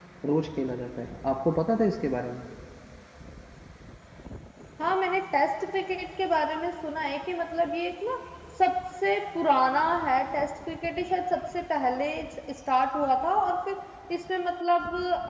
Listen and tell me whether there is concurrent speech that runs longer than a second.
No

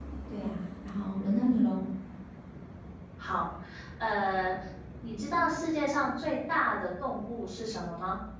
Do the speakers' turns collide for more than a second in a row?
No

